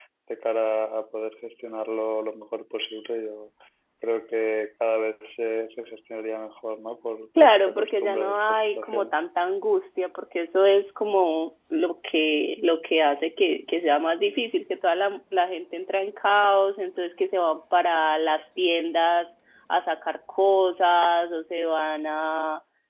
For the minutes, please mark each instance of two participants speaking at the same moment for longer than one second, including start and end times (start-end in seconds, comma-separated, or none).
7.4-9.1